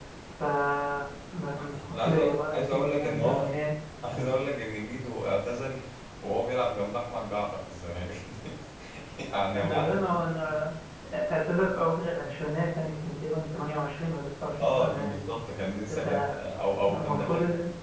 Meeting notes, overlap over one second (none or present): present